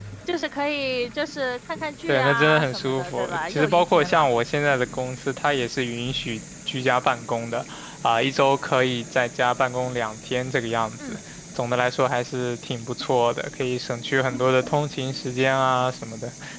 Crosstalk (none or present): present